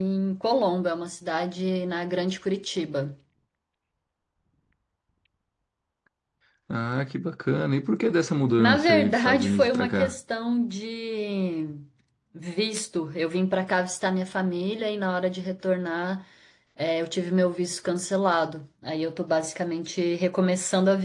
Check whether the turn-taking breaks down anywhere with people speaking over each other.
Yes, from 8.6 s

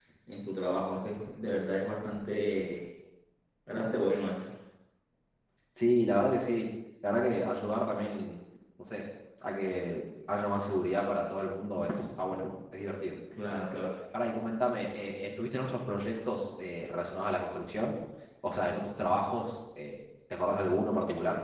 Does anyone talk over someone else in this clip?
No

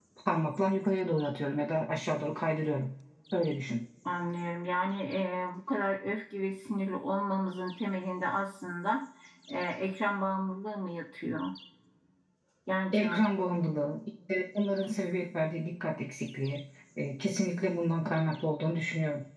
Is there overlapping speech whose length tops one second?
No

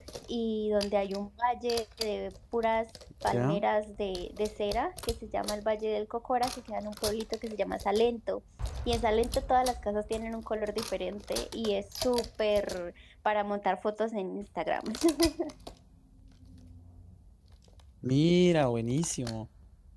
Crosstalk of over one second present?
No

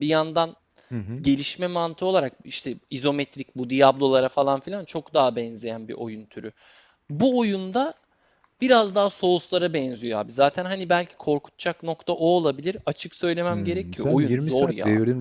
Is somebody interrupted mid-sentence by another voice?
Yes, from 13.5 s

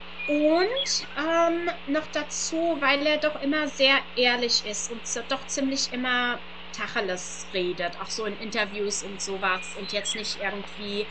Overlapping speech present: No

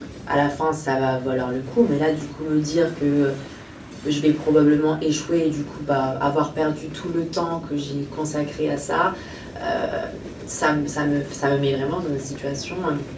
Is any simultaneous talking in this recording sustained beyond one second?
No

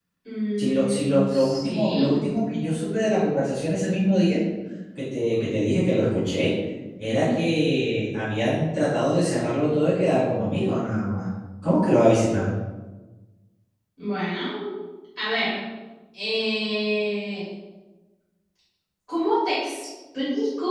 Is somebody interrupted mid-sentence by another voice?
Yes, from 0.6 s

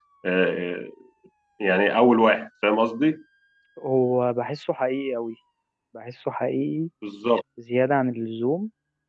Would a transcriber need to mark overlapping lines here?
No

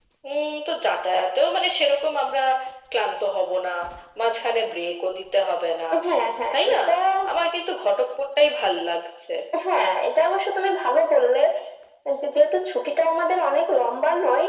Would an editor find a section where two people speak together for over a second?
No

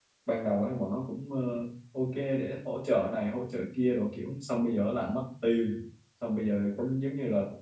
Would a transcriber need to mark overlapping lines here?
No

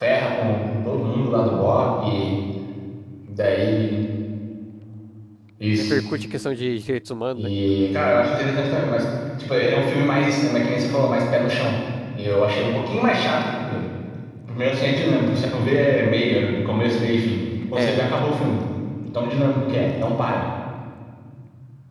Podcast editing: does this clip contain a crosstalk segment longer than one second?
No

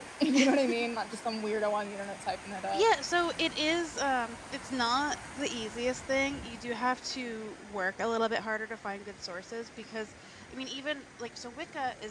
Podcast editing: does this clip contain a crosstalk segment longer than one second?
No

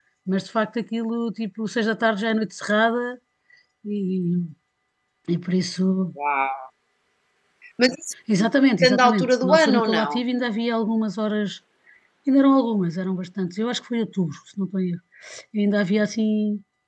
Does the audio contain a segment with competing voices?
Yes, from 8.8 s

